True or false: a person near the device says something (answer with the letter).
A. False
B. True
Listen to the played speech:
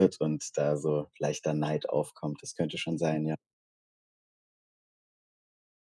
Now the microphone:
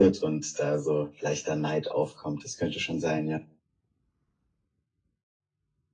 A